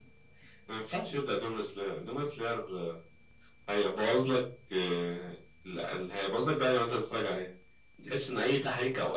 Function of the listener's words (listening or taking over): listening